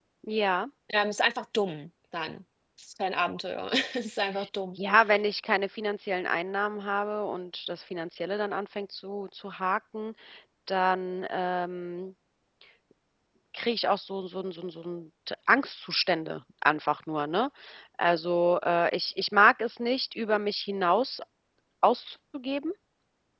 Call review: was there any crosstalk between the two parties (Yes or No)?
No